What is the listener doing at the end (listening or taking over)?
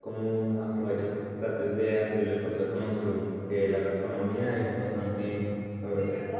taking over